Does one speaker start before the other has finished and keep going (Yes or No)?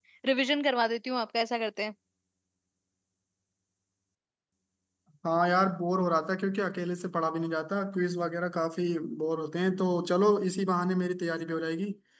No